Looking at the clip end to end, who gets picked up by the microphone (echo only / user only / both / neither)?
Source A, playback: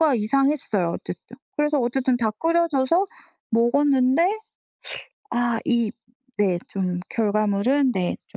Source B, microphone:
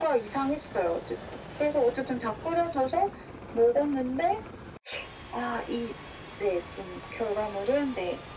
echo only